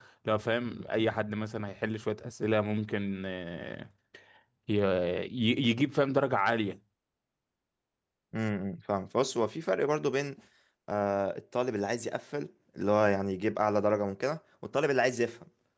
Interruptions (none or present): none